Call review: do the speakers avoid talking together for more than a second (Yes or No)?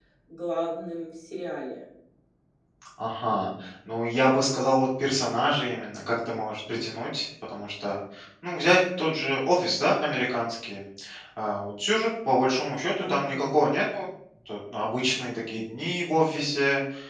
Yes